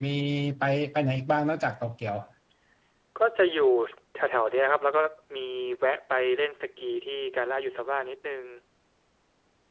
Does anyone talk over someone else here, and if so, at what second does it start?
none

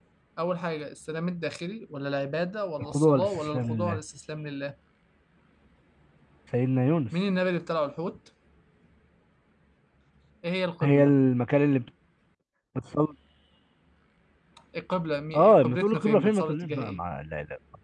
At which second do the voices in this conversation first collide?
2.8 s

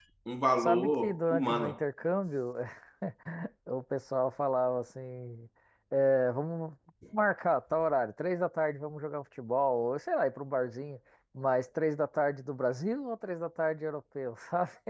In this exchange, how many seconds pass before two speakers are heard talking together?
0.6 s

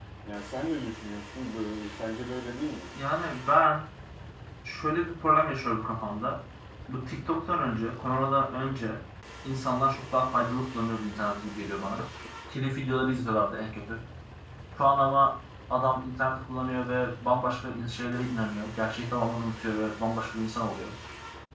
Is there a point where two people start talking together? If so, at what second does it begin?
none

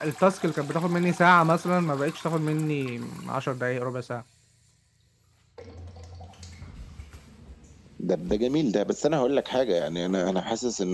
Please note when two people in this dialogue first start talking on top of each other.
none

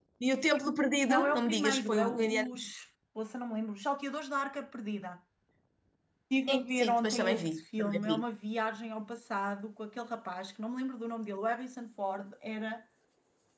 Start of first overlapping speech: 1.1 s

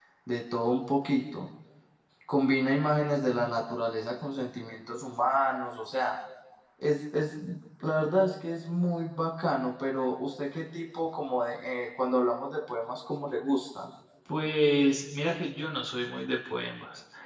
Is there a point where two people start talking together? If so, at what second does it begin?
none

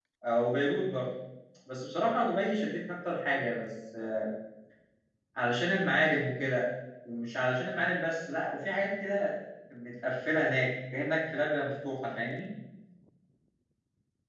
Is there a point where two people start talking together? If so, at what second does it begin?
none

